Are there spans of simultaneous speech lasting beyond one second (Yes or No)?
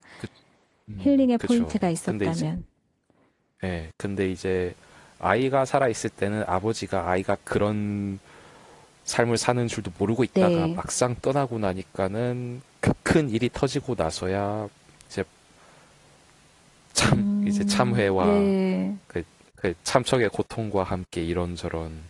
Yes